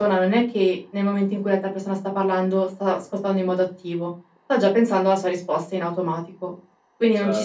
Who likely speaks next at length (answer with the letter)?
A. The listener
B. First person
B